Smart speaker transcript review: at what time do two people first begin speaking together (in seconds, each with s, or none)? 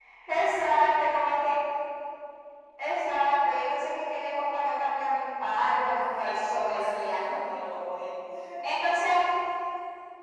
5.7 s